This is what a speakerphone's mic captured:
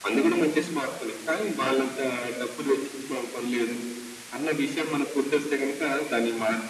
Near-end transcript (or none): none